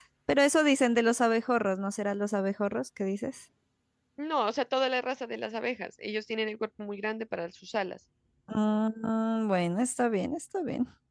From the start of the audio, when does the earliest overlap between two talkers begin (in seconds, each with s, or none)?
none